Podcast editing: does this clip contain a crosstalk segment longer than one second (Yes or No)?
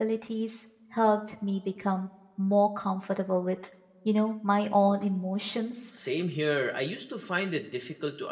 No